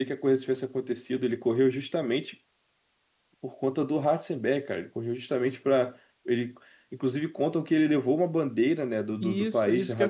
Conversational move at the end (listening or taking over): taking over